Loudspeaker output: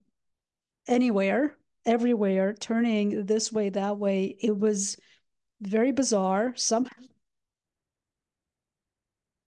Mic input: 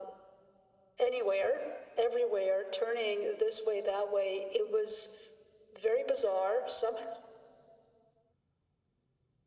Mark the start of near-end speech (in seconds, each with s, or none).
none